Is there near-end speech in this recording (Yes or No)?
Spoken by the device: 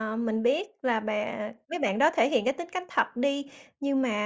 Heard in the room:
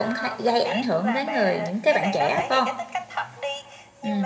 Yes